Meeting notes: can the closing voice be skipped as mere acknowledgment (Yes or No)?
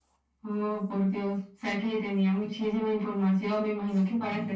No